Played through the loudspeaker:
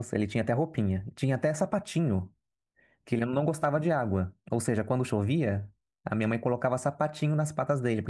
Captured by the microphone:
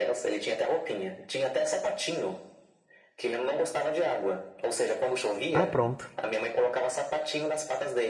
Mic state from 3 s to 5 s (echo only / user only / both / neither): echo only